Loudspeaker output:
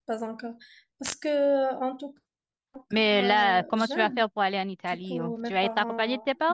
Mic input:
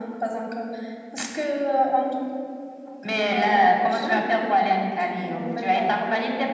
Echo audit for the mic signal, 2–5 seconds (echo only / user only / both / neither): echo only